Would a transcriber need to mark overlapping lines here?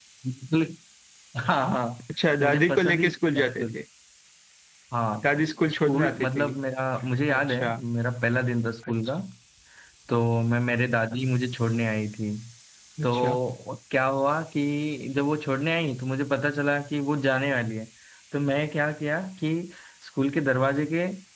Yes, from 2.4 s

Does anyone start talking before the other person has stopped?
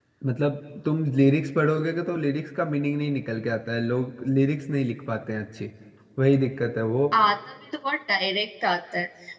No

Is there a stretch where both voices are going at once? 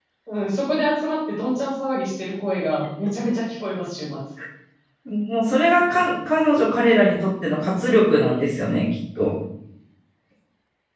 No

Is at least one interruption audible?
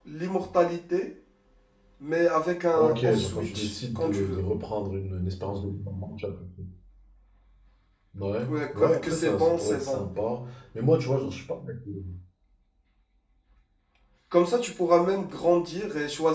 Yes, from 2.8 s

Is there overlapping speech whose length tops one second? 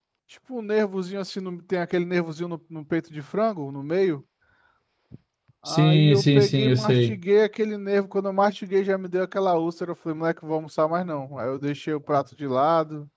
Yes, from 5.7 s

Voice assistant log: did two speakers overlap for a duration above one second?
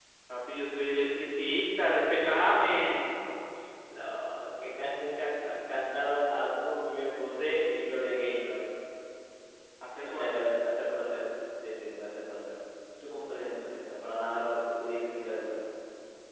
No

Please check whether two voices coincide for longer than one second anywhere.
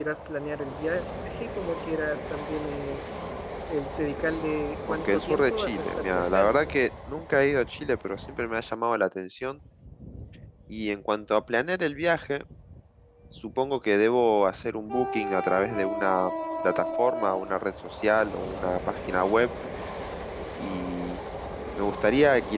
Yes, from 4.9 s

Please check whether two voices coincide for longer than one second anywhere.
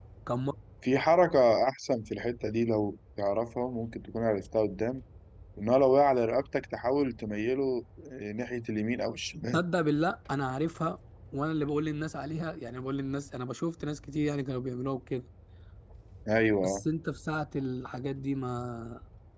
No

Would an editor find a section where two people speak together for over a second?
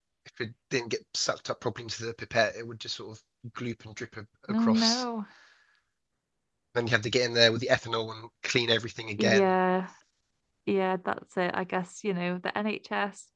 No

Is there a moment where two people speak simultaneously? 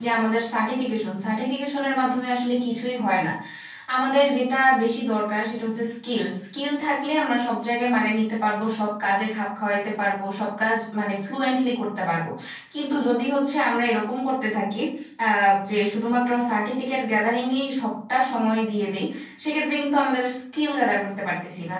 No

